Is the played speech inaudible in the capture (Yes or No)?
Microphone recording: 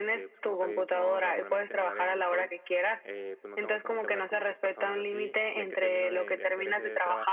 No